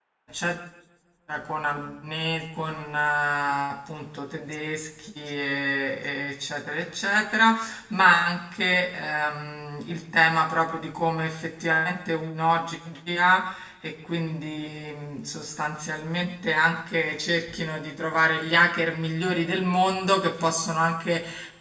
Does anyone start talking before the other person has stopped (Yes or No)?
No